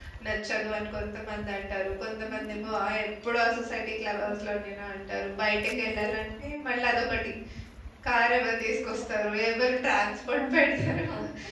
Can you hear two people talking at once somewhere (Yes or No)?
Yes